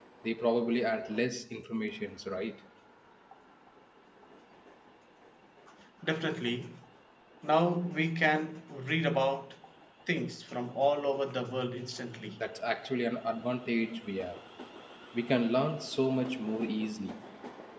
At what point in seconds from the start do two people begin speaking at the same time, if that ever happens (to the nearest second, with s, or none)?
none